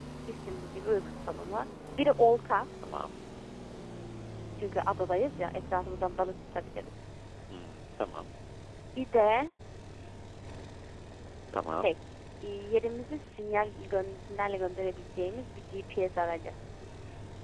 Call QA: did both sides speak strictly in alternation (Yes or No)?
Yes